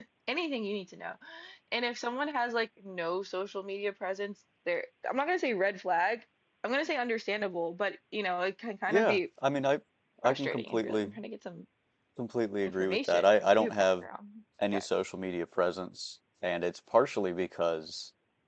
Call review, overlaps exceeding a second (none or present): present